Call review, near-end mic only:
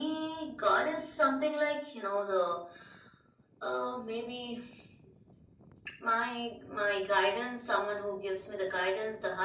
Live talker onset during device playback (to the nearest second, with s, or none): none